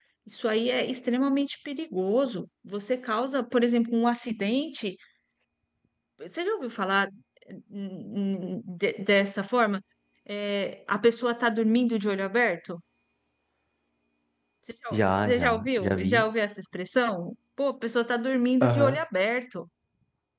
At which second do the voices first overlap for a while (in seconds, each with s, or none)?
14.9 s